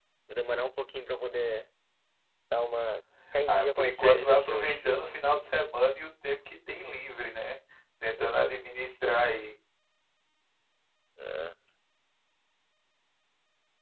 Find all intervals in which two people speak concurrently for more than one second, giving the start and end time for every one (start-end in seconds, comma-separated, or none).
3.5-4.8